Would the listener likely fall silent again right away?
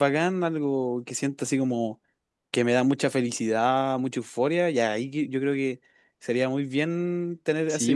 No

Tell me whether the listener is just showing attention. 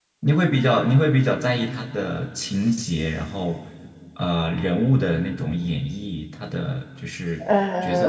No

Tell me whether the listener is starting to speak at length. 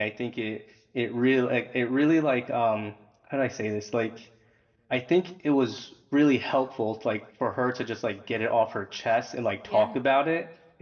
No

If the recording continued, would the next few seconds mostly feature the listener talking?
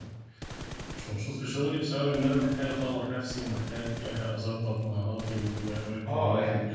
Yes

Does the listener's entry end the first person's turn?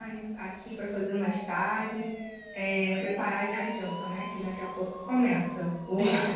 Yes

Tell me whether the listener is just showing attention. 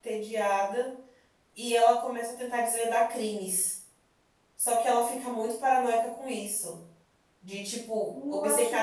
No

